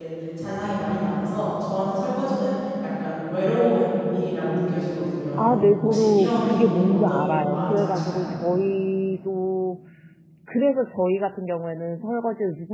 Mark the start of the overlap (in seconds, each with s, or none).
5.4 s